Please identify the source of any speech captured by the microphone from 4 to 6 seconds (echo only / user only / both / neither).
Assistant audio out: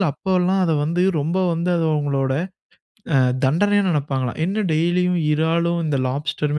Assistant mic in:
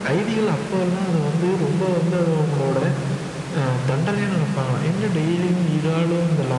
echo only